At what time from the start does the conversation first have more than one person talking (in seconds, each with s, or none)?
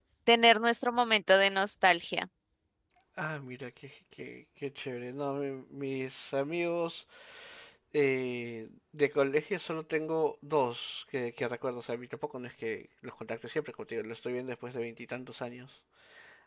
none